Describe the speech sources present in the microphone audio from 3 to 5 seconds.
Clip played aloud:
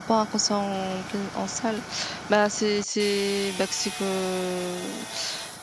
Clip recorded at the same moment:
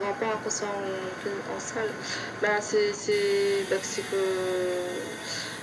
echo only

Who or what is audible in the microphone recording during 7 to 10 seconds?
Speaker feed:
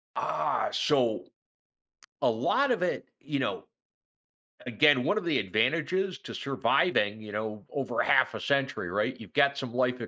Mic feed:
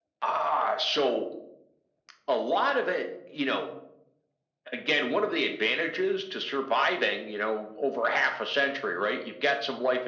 echo only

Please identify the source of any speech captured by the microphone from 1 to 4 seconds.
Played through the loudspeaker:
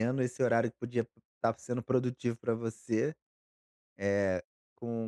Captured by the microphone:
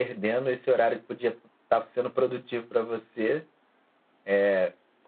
echo only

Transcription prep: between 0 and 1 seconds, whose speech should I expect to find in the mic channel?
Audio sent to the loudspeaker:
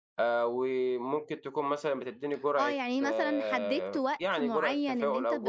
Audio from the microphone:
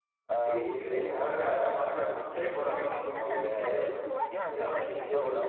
both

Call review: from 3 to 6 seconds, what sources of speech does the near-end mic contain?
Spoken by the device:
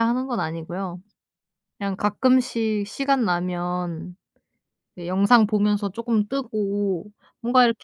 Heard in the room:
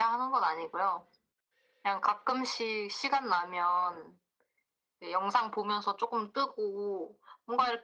echo only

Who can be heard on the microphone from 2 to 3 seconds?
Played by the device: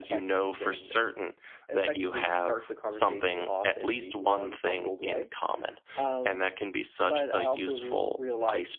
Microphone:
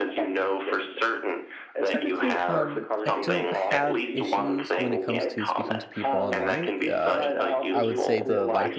both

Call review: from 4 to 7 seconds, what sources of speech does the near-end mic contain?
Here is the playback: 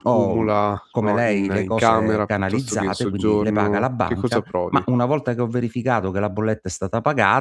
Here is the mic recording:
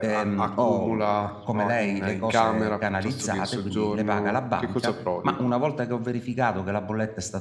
echo only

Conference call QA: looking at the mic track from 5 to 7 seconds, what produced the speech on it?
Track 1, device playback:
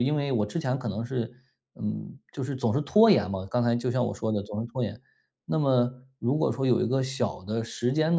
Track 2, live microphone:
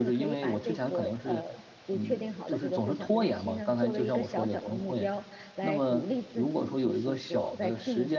both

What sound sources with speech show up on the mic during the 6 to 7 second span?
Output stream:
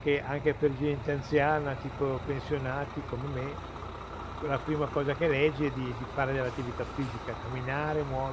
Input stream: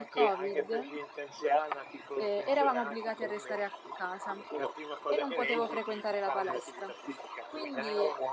both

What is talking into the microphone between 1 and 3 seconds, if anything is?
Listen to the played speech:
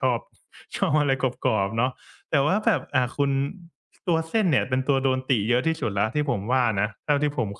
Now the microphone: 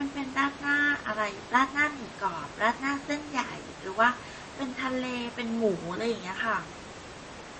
user only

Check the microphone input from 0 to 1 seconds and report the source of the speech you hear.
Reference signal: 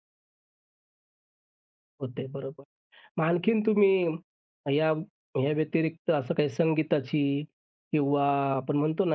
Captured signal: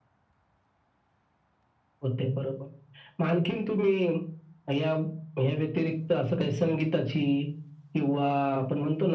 neither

